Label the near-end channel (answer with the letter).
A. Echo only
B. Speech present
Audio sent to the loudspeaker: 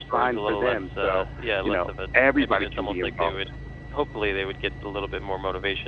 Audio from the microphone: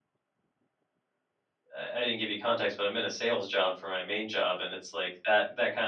B